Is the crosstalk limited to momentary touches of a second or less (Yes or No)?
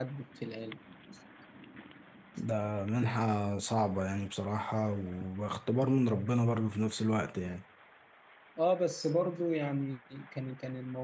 Yes